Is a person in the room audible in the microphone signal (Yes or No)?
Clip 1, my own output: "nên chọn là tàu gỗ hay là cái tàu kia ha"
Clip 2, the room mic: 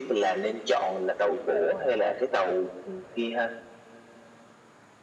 No